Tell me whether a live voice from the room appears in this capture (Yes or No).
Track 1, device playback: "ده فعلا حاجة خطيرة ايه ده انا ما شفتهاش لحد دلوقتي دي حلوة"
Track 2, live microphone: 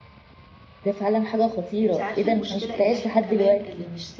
Yes